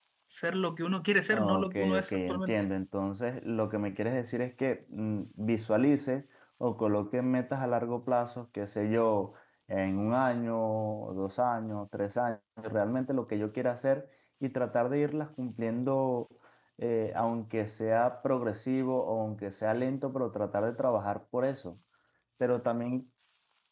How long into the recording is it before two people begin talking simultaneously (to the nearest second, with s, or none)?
1 s